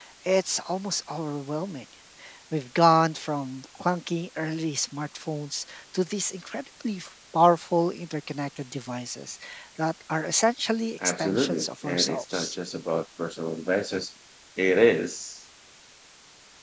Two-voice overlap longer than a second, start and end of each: 11.0-12.6

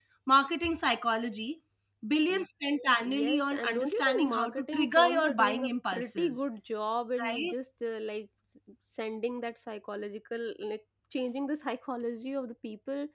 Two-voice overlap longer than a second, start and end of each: 3.0-6.4

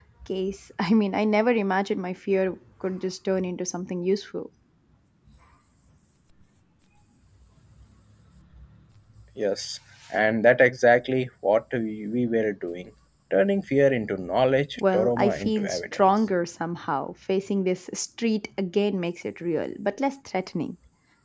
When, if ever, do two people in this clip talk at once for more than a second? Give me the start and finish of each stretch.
14.8-16.0

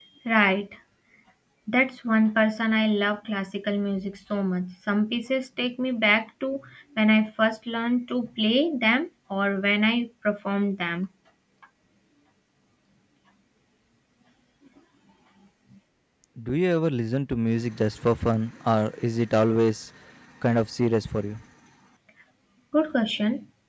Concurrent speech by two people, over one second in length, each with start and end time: none

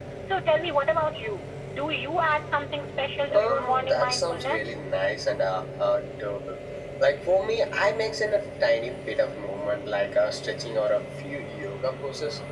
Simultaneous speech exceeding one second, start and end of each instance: 3.3-4.6

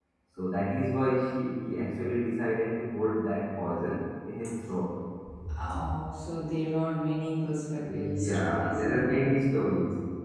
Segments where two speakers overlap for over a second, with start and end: 7.8-9.2

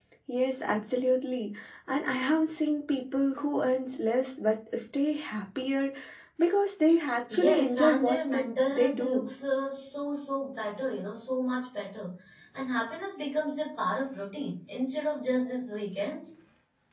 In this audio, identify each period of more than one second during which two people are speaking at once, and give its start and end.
7.3-9.3

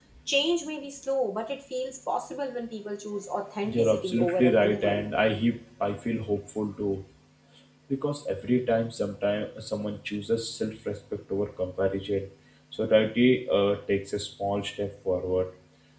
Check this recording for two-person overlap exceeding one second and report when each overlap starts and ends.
3.7-5.0

